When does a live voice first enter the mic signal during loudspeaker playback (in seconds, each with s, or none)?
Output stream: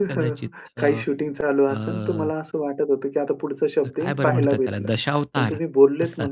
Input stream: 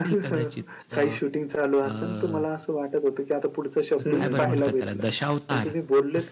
4.1 s